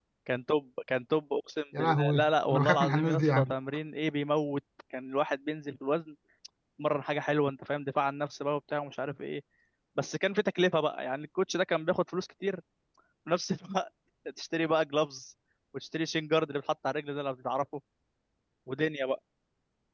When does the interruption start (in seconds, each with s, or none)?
1.7 s